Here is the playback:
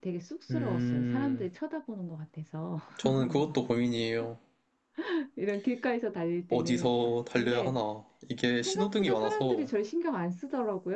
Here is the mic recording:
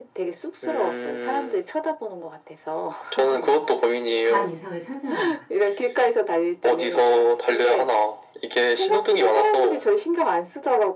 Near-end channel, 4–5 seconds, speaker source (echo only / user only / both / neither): both